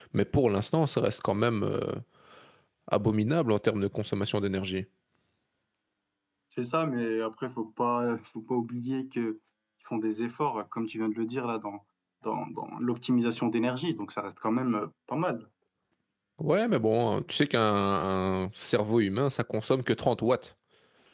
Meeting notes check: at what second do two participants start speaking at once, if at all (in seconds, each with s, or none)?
none